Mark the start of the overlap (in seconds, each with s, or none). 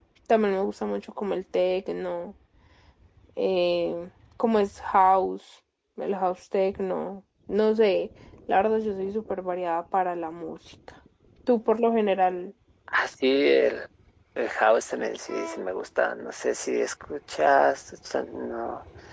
none